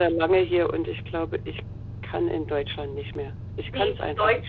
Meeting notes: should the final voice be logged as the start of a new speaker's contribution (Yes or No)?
Yes